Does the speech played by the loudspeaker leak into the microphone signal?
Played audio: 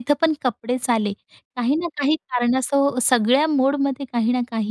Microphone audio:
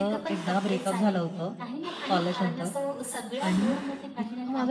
Yes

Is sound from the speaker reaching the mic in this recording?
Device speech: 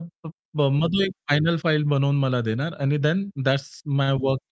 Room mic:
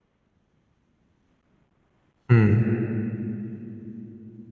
No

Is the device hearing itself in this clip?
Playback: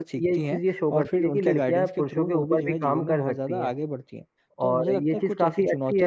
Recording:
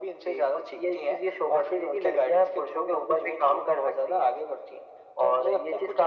Yes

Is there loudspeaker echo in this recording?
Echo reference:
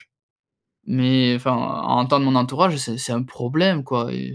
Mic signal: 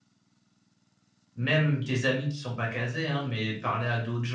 No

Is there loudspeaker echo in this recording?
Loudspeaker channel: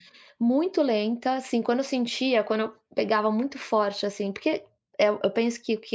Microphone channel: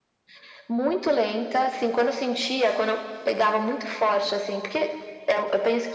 Yes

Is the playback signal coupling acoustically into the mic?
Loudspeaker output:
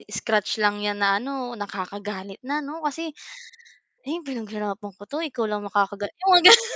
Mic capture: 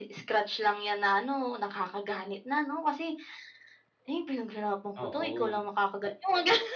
Yes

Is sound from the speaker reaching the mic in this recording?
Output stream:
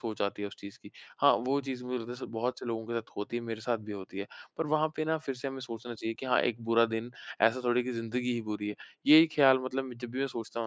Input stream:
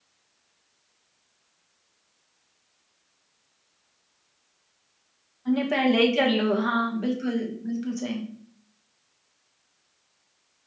No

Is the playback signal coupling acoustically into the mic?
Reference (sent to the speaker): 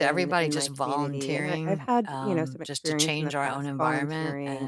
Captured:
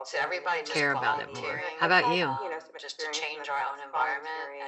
Yes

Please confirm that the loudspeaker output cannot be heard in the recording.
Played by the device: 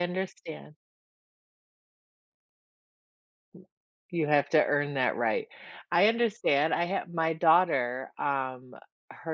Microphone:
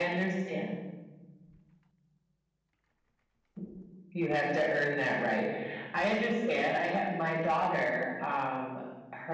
No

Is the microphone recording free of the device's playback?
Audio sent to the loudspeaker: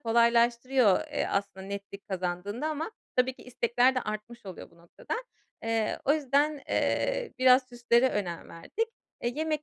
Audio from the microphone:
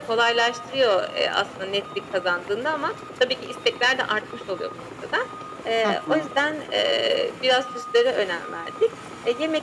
No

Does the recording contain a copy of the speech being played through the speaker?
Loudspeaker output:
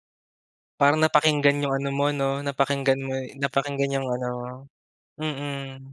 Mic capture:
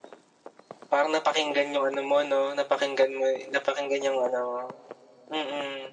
Yes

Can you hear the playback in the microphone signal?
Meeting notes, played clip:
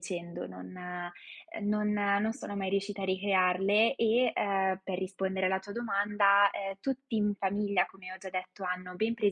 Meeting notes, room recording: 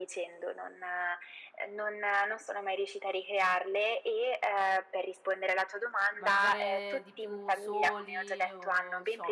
Yes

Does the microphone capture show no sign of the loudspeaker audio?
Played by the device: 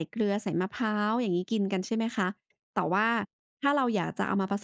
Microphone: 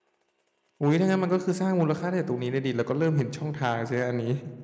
Yes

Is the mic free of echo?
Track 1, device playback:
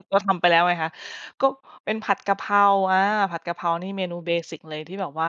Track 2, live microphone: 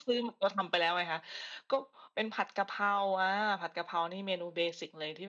No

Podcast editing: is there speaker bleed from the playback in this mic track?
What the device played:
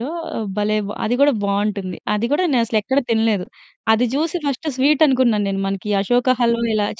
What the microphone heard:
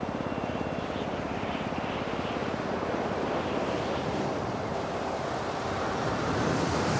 No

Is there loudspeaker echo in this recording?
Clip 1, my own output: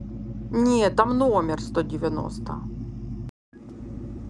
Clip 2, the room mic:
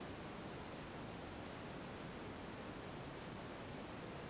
No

